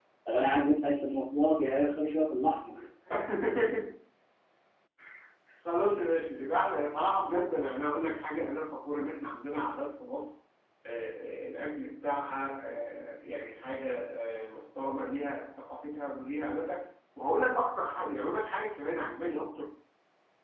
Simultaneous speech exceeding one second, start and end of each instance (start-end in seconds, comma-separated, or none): none